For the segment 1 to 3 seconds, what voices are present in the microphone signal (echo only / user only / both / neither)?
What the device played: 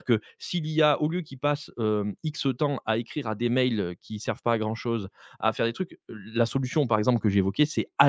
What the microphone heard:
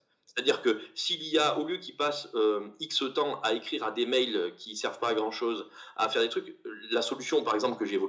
echo only